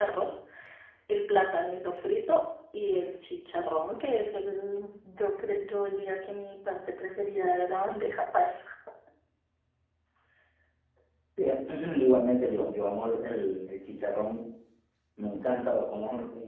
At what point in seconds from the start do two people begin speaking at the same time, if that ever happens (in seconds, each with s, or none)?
none